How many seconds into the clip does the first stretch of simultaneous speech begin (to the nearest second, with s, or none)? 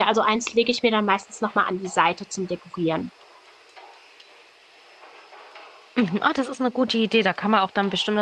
none